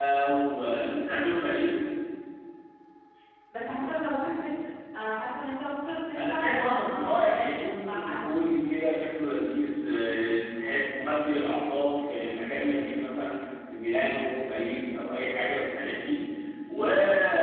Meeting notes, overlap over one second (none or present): present